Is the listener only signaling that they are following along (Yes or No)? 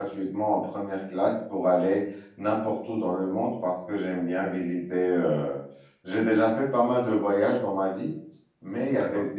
Yes